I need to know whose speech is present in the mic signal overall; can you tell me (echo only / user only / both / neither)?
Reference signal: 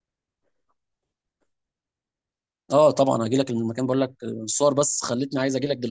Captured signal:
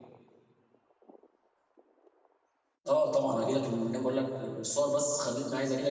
echo only